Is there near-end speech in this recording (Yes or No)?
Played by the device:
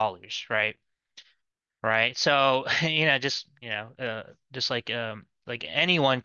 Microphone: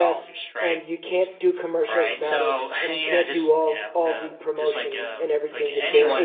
Yes